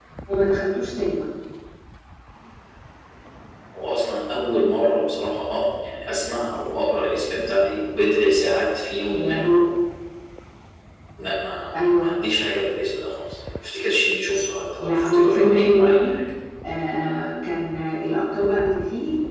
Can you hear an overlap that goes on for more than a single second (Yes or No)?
Yes